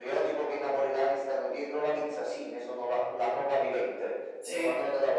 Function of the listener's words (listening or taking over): listening